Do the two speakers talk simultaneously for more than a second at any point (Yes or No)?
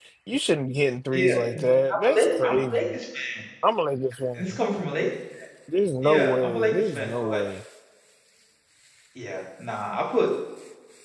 Yes